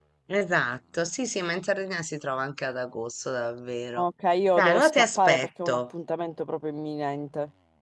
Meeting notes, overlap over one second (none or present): present